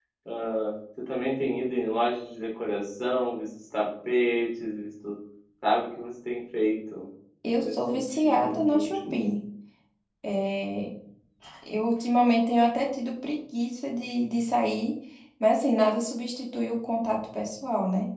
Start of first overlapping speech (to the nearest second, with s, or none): 8 s